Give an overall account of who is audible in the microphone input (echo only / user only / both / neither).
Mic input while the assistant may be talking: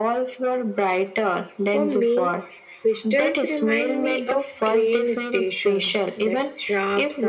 both